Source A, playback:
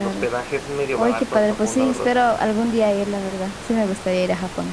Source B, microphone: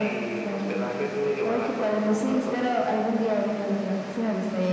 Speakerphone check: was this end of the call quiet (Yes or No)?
Yes